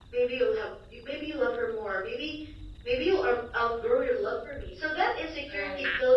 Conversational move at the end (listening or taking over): listening